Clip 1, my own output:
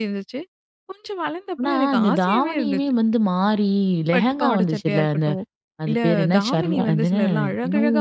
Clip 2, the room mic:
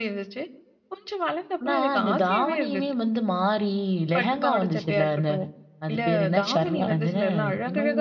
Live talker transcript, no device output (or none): none